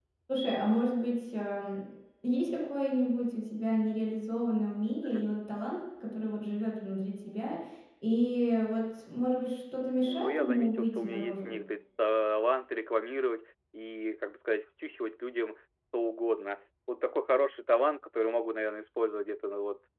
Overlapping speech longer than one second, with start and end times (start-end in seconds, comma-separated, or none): 10.1-11.5